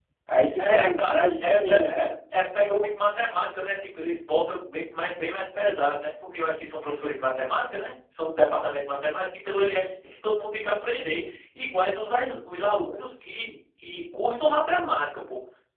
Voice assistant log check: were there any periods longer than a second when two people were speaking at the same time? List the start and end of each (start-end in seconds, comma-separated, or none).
0.6-2.1